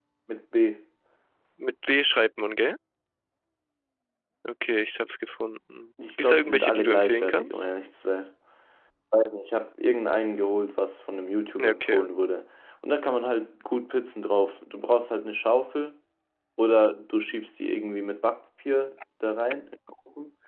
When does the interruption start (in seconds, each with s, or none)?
6.2 s